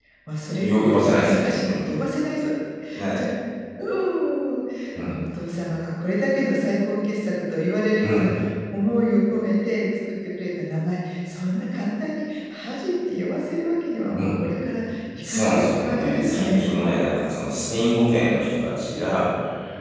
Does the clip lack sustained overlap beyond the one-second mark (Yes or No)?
No